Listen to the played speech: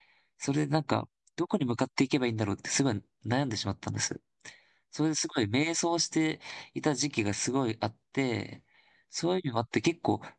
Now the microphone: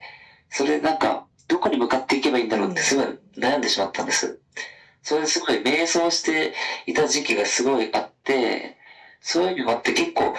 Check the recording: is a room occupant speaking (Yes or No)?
Yes